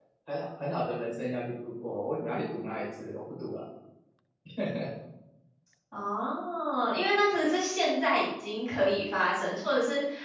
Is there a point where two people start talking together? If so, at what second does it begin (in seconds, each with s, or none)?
none